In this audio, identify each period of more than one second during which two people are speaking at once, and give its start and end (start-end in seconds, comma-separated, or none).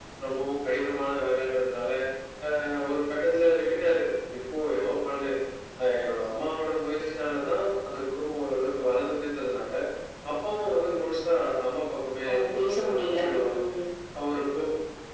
12.3-13.5